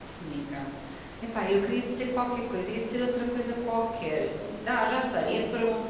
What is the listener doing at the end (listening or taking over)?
listening